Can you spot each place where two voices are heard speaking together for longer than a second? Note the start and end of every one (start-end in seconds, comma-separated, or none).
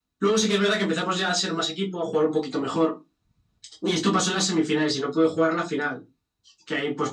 none